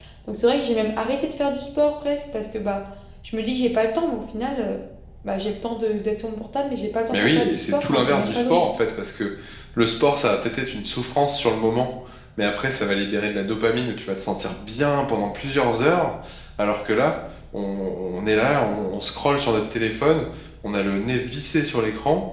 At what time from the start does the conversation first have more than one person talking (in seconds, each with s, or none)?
7.1 s